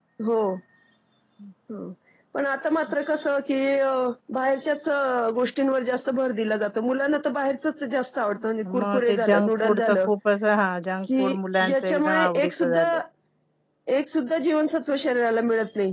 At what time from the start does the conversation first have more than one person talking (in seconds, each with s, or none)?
8.6 s